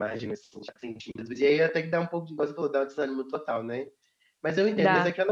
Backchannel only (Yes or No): Yes